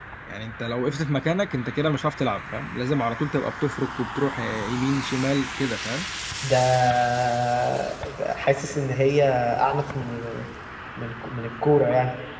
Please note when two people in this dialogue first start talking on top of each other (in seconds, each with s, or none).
none